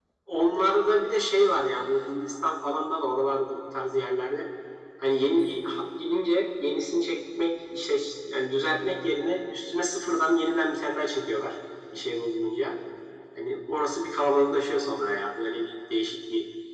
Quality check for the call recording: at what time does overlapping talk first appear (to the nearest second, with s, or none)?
none